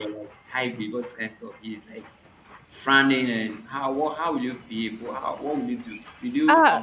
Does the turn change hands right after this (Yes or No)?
Yes